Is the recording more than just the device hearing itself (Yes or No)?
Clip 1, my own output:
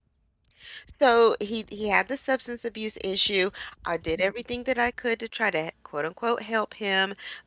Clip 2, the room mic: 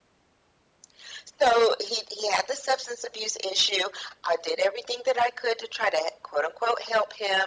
No